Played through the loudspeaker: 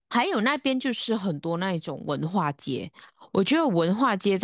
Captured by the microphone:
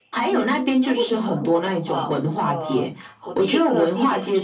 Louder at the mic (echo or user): echo